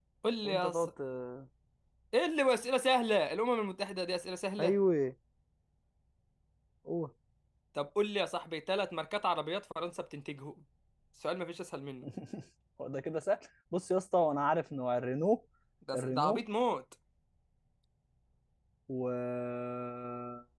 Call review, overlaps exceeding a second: none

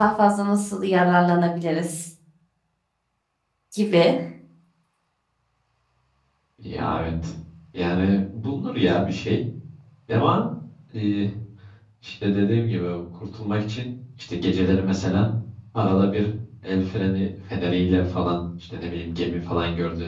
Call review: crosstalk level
none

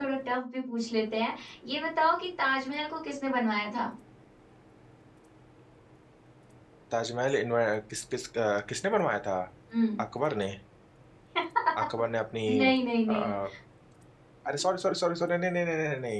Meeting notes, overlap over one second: none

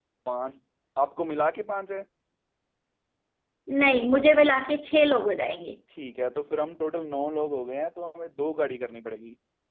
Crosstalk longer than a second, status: none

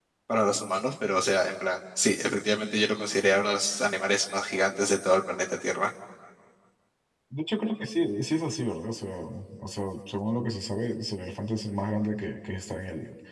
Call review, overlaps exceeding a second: none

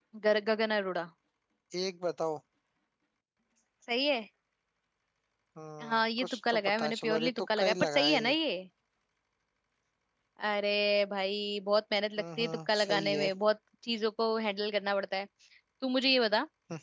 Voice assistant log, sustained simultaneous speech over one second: present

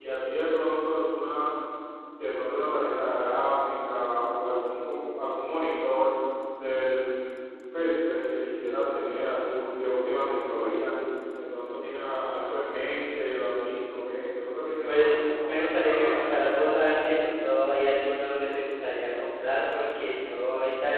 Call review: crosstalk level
present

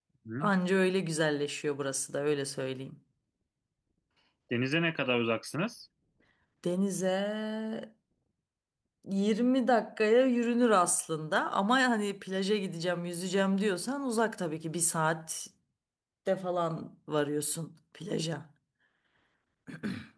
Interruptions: none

